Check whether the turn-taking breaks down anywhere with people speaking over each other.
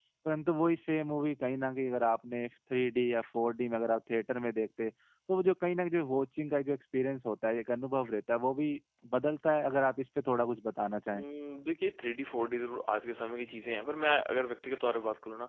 No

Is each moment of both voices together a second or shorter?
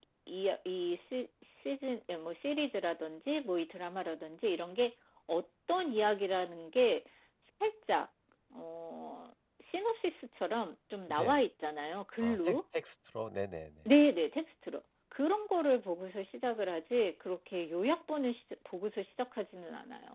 Yes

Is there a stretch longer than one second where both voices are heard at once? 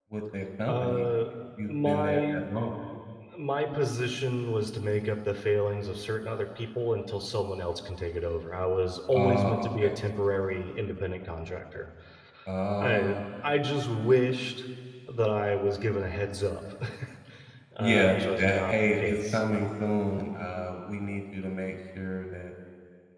Yes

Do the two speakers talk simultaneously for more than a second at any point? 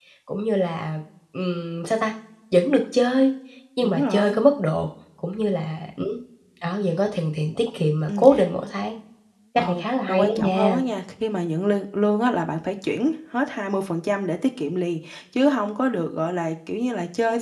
Yes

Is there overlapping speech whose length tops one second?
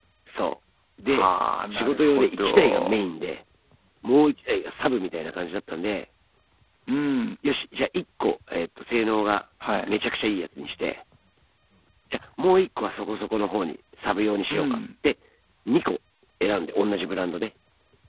Yes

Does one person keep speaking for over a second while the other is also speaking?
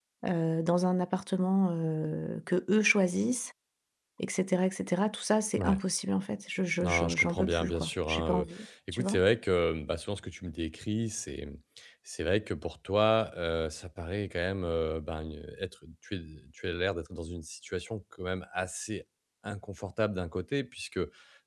Yes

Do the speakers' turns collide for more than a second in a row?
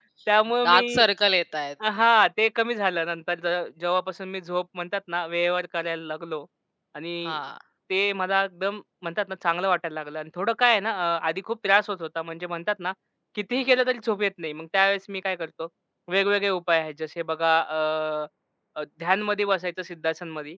No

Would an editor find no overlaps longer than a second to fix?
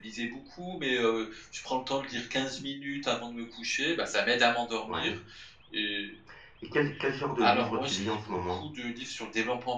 No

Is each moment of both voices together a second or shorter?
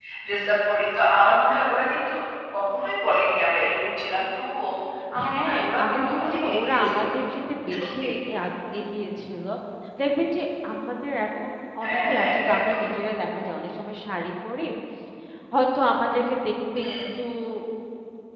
No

